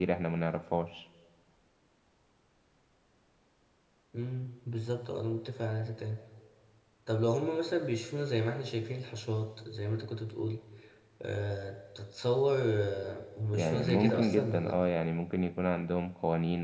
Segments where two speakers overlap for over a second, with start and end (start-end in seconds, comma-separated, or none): 13.5-14.8